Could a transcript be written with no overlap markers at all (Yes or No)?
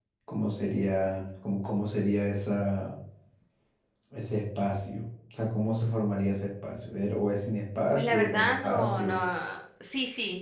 No